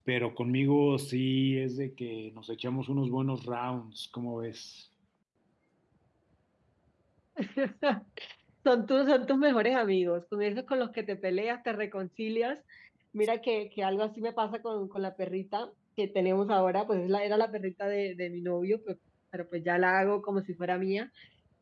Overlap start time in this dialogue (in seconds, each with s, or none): none